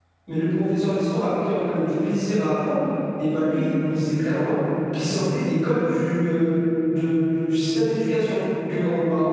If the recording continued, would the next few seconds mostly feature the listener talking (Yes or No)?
No